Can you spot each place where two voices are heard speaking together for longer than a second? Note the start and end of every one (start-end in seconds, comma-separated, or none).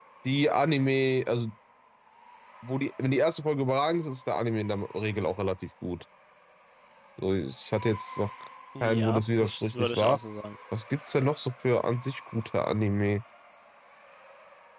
8.8-10.2